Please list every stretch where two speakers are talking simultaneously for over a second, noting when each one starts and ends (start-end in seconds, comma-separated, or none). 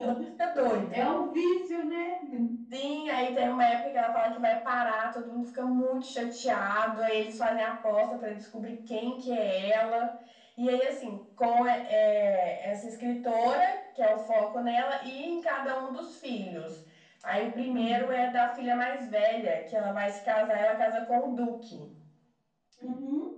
none